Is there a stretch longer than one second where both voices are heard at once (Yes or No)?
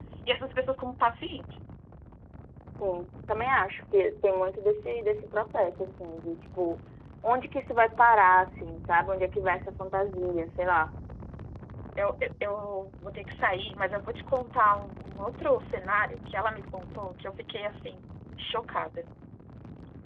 No